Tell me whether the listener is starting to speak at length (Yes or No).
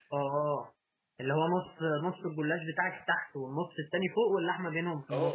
Yes